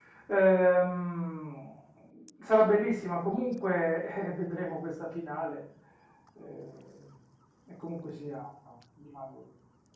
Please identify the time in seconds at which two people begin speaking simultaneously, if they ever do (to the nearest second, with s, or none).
none